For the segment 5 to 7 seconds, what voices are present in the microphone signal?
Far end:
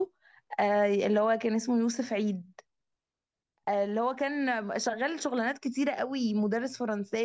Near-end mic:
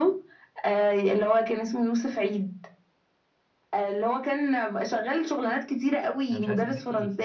both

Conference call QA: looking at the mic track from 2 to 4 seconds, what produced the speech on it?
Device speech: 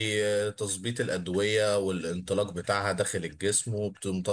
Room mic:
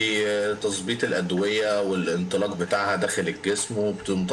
echo only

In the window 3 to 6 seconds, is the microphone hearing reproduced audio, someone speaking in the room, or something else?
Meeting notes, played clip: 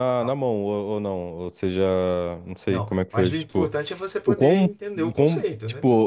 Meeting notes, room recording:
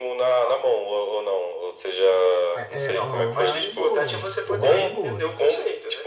both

